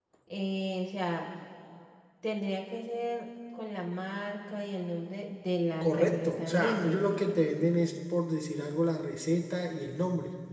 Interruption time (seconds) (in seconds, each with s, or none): 5.8 s